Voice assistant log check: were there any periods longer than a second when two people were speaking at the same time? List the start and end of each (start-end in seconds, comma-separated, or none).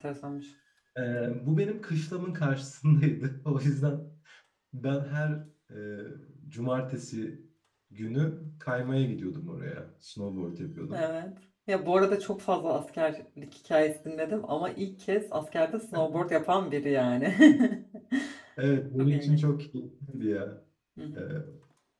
none